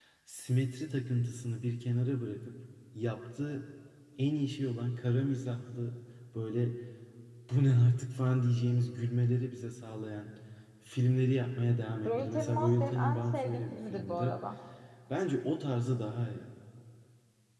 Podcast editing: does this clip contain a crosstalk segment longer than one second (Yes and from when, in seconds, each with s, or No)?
Yes, from 12.0 s